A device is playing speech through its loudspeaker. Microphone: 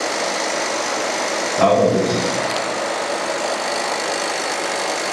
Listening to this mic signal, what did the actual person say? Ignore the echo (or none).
Ne yapabiliriz?